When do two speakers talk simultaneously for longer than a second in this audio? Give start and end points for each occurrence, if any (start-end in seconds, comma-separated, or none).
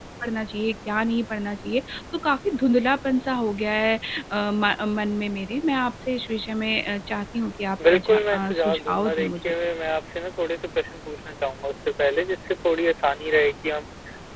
7.8-9.5